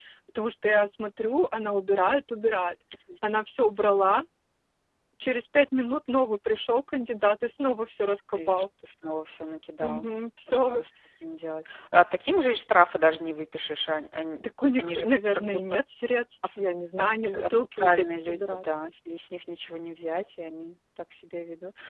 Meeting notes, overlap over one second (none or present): present